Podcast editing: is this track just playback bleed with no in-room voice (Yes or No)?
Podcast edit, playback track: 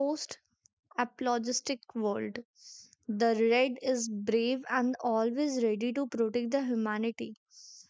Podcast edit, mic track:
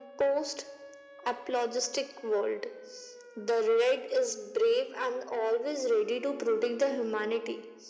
Yes